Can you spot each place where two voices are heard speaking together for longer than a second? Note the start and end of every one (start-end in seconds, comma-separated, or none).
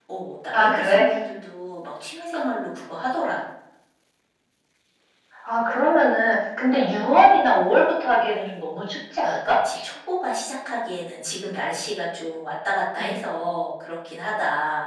none